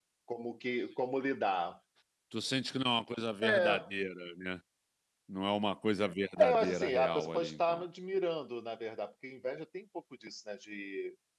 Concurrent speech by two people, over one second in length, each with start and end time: 6.4-7.8

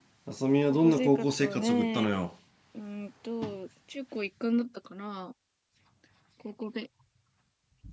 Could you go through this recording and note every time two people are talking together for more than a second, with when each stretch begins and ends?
0.7-2.2

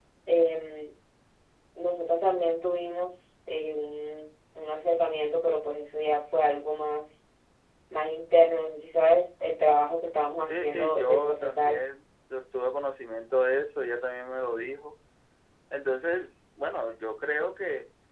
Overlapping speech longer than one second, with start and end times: 10.5-11.8

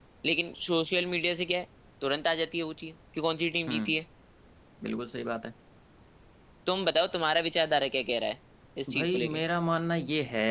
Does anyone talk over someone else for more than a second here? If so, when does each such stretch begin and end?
none

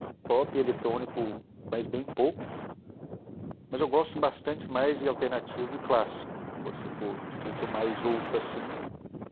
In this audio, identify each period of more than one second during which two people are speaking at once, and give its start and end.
none

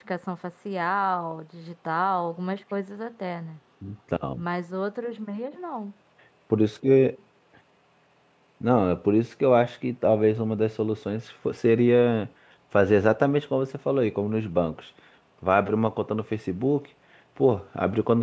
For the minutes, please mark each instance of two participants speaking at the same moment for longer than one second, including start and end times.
none

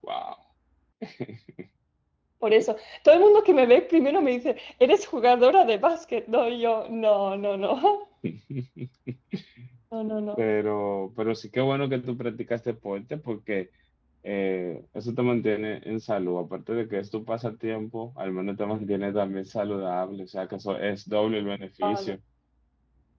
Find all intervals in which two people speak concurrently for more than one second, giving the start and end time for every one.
none

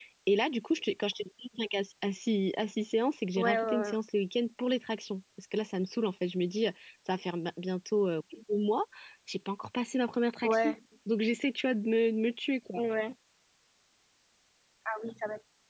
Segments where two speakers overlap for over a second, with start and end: none

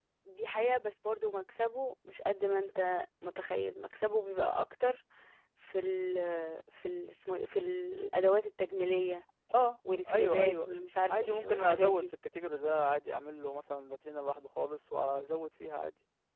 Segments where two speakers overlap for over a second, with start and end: 10.1-12.0

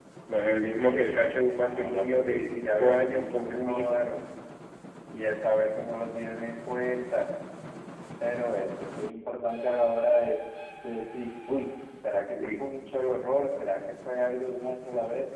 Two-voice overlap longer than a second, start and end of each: 0.6-4.0

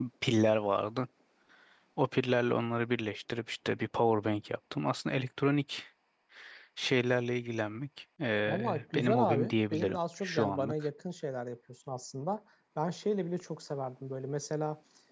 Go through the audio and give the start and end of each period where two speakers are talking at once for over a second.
8.5-10.7

